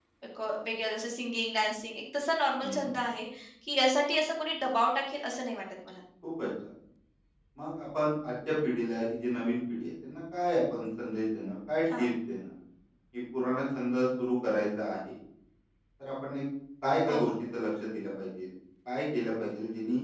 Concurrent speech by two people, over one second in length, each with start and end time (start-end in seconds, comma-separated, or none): none